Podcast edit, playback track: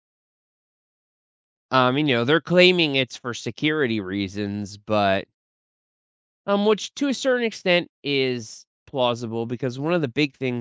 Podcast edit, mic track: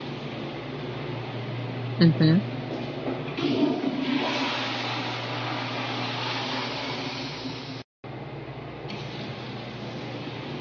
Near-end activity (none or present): present